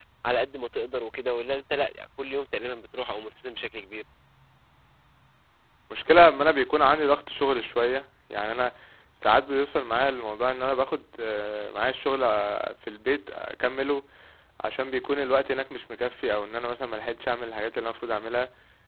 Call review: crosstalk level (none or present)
none